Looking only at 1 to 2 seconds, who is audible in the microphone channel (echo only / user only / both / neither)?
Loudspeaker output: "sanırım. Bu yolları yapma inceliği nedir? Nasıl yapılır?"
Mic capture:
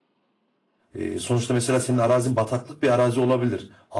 user only